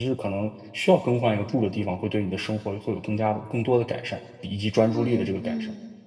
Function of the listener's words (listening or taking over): taking over